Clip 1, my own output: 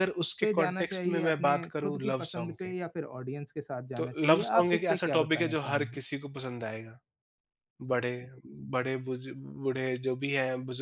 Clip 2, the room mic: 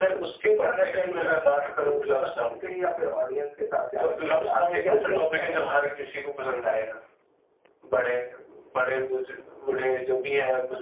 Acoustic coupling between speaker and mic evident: Yes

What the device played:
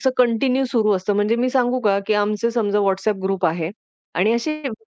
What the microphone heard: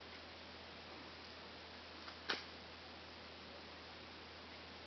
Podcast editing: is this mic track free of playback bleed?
Yes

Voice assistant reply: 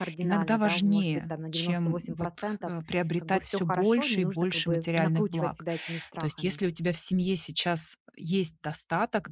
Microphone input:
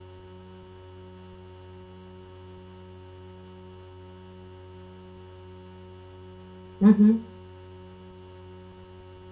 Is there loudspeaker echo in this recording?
No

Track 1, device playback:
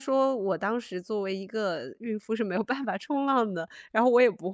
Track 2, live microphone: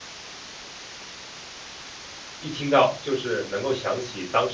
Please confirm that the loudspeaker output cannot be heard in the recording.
Yes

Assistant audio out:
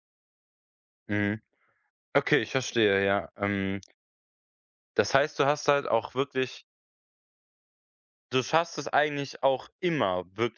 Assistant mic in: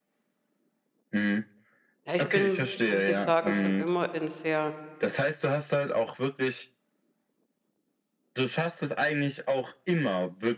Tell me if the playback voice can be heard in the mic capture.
Yes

